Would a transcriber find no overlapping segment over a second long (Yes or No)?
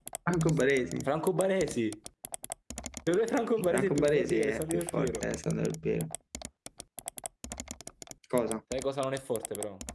No